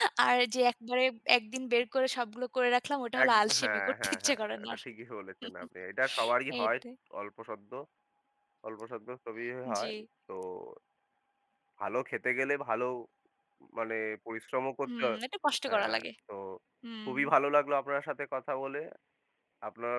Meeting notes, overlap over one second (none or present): present